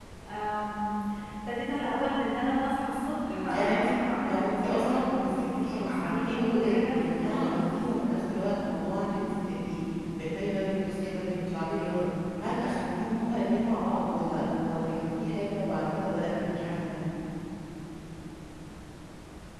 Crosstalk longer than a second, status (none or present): present